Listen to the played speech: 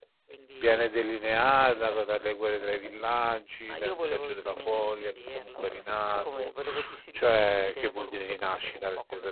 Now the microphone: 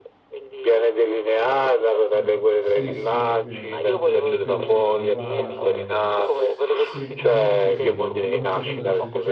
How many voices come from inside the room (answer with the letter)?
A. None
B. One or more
B